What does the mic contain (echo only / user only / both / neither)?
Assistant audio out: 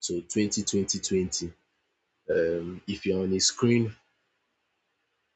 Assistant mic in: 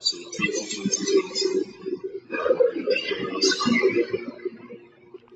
echo only